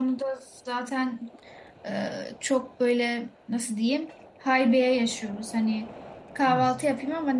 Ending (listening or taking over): listening